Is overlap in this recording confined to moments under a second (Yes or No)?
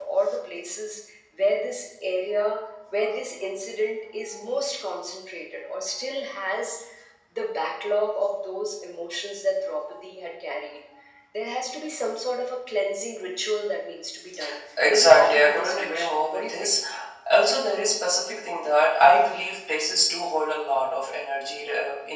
No